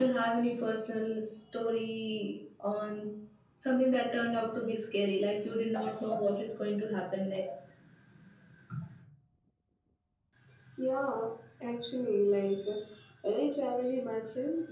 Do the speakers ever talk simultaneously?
No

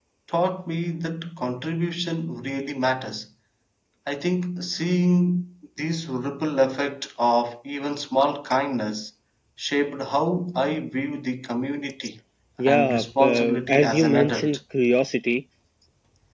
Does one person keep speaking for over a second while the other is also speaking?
Yes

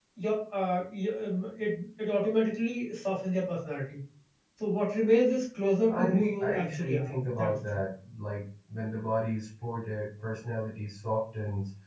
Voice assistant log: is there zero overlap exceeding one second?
No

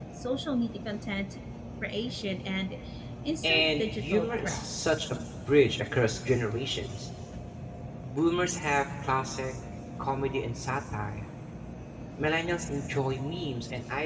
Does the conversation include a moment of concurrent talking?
Yes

